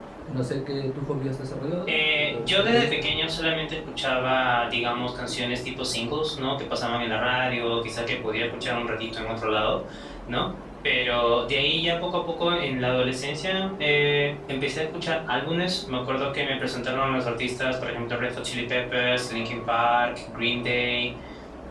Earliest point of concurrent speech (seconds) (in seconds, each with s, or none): 1.9 s